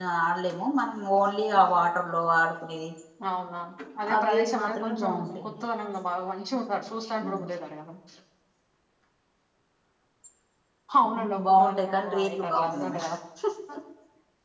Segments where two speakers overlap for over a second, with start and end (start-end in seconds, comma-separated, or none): 4.2-5.5, 11.2-13.0